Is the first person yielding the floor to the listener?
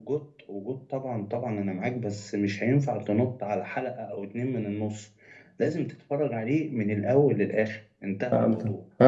Yes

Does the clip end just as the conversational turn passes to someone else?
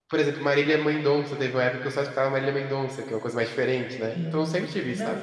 Yes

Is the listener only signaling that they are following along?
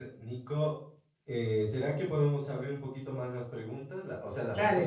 No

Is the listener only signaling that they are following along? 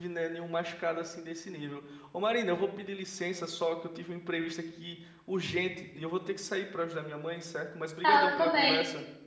No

